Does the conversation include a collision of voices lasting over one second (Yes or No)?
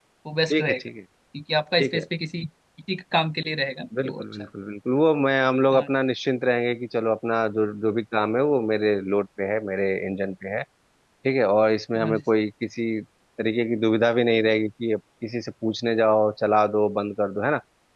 No